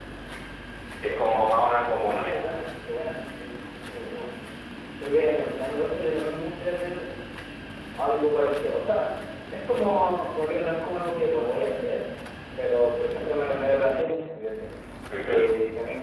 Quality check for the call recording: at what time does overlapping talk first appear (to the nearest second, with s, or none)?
1 s